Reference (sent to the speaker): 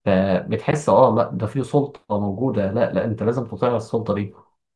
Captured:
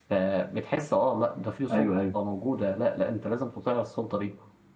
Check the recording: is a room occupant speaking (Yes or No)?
Yes